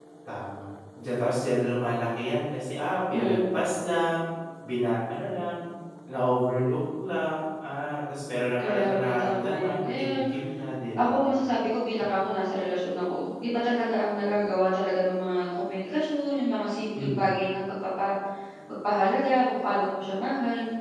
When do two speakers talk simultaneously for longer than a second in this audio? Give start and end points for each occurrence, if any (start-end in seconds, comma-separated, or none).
8.6-10.2